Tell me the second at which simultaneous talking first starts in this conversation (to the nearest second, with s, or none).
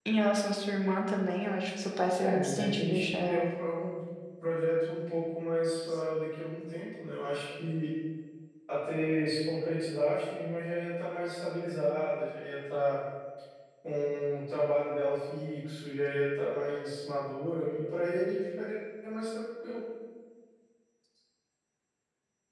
2 s